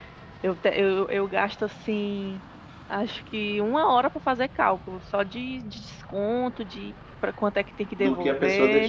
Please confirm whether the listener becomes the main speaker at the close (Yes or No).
Yes